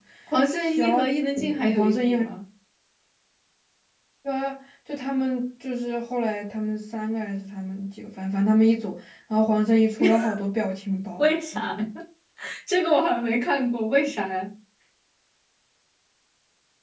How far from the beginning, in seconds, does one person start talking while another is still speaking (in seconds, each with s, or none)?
0.6 s